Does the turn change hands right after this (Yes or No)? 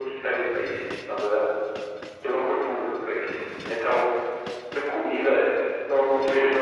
Yes